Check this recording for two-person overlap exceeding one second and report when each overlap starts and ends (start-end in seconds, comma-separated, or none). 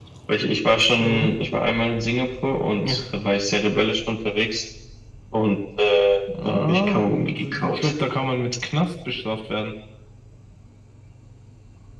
6.5-7.9